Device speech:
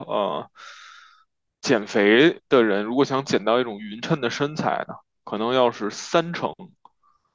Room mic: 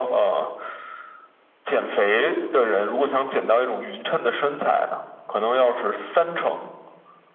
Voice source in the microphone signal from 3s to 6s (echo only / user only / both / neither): echo only